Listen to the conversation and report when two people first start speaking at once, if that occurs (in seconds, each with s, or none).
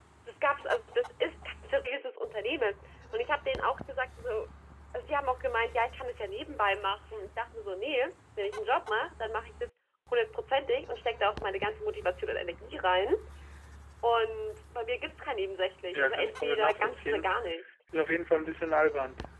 15.9 s